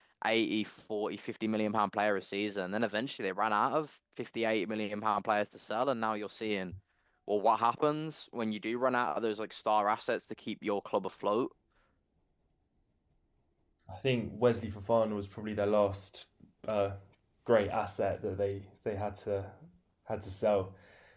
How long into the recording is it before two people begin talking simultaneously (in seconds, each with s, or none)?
none